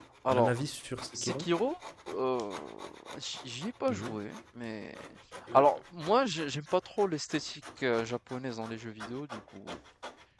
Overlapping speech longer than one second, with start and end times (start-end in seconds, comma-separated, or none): none